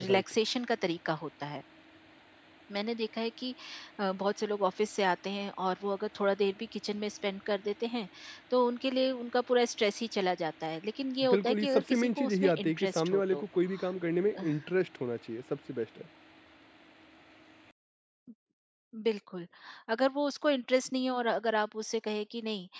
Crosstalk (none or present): present